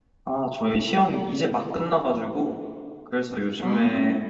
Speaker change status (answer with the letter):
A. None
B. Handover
A